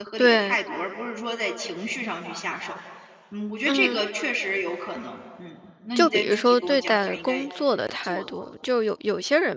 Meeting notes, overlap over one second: present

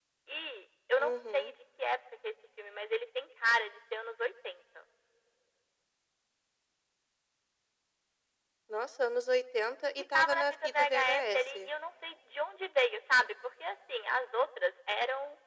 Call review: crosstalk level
present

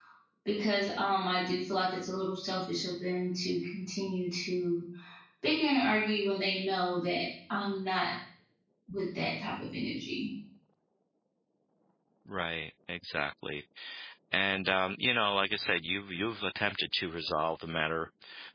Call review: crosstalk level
none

